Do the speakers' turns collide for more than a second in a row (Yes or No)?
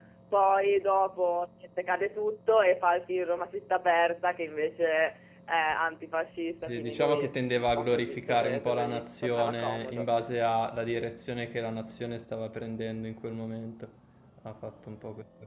Yes